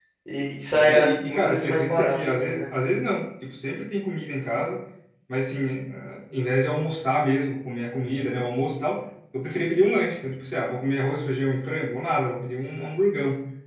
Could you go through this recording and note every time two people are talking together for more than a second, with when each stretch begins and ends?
0.8-2.7

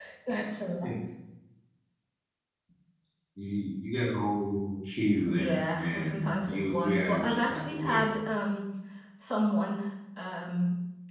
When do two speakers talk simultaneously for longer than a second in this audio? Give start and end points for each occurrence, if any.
5.2-8.1

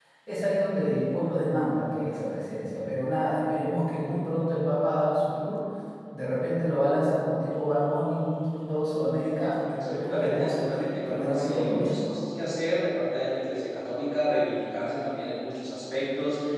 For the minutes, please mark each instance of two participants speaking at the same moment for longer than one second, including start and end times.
9.8-11.9

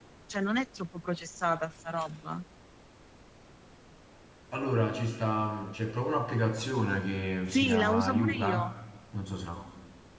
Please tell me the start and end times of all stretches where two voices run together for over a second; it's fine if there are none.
7.5-8.7

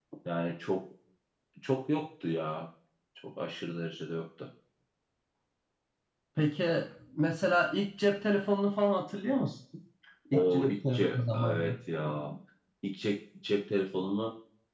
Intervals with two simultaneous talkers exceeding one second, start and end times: 10.3-11.6

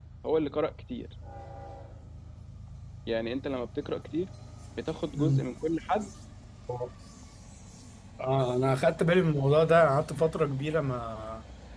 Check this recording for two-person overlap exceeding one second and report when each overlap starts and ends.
none

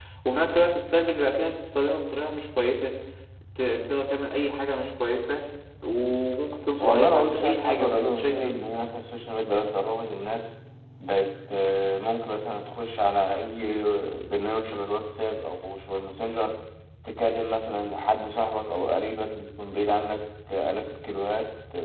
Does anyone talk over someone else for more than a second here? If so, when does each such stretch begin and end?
6.8-8.5

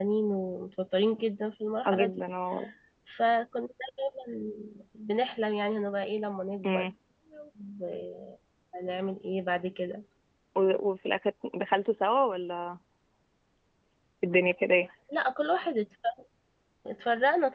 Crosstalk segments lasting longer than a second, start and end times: none

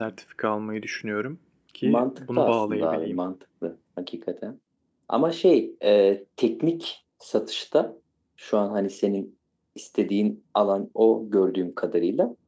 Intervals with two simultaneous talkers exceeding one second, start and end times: 1.8-3.2

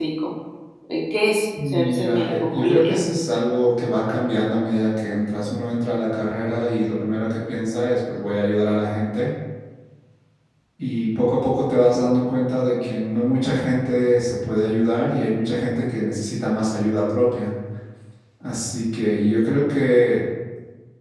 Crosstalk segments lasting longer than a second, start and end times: 1.7-3.0

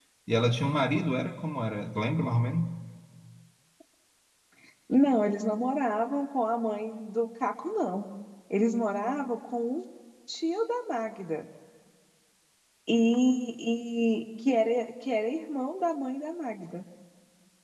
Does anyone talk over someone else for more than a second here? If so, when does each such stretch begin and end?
none

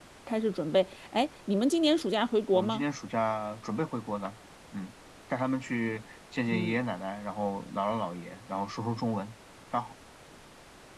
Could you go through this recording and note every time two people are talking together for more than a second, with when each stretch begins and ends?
none

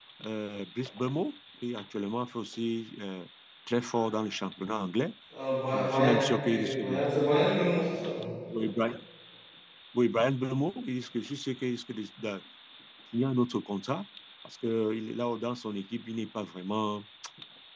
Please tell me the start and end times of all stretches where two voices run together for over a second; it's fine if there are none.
5.7-7.0

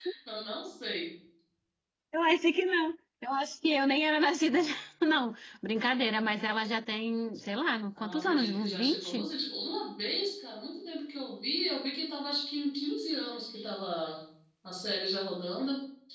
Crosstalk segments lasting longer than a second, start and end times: 8.0-9.3

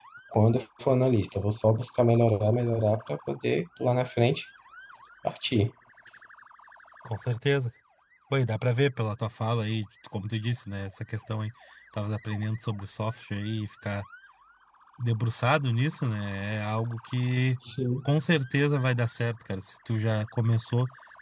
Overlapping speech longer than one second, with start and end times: none

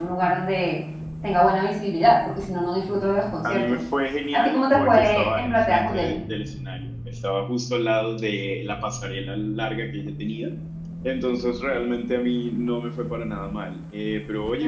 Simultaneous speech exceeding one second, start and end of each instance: 4.3-6.2

